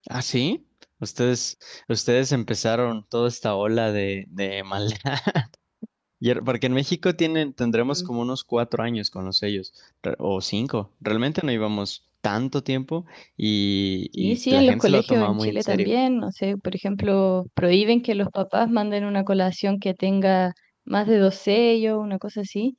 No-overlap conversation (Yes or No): No